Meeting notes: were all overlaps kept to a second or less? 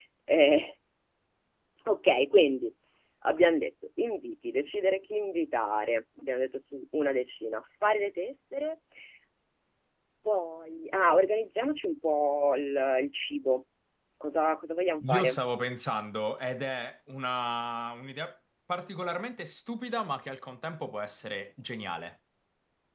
Yes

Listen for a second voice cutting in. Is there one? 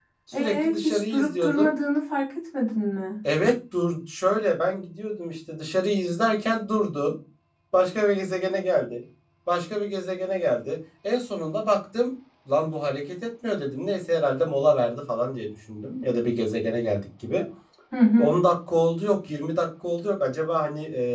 Yes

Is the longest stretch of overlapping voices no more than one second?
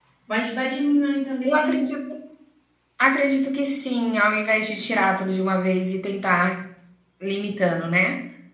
Yes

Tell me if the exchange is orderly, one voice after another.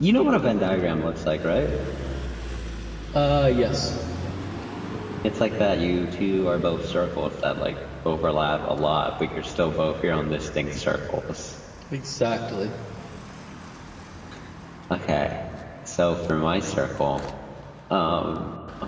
Yes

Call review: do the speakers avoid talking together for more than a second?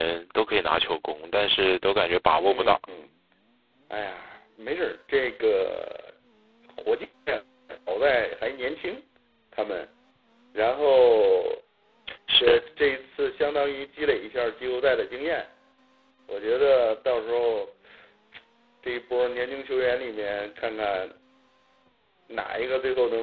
Yes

